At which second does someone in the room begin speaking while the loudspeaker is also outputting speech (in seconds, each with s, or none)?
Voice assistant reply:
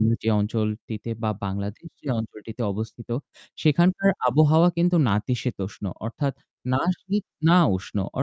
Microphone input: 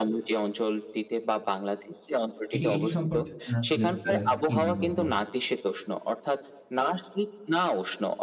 2.5 s